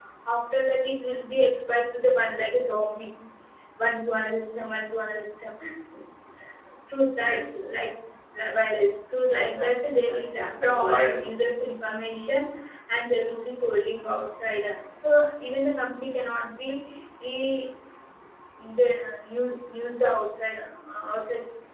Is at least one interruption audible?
Yes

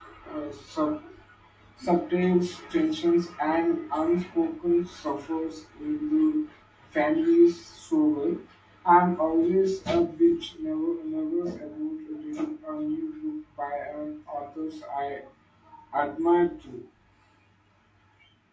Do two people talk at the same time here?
No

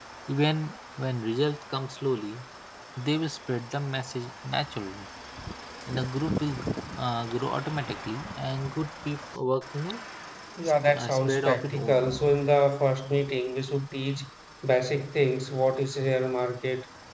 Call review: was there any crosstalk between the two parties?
Yes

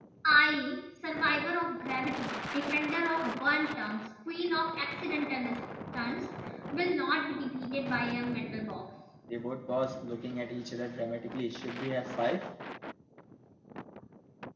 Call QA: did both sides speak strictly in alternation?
Yes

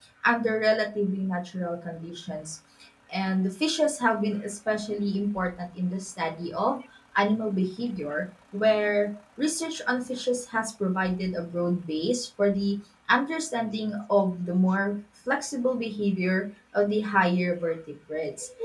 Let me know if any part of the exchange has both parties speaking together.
No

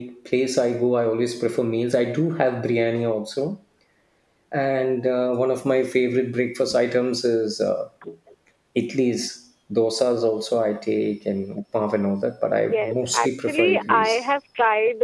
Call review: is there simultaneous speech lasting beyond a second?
Yes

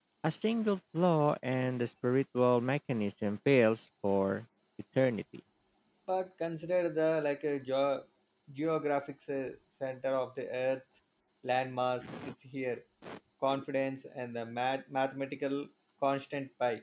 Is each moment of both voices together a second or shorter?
Yes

